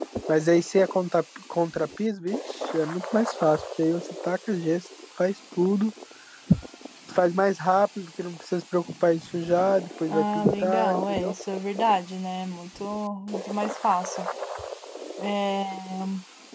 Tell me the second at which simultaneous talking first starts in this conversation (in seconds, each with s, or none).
10.1 s